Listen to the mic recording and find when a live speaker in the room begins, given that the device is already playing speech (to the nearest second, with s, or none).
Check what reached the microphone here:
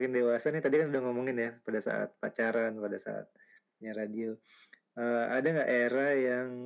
none